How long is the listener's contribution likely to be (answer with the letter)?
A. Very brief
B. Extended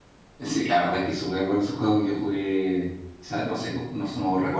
A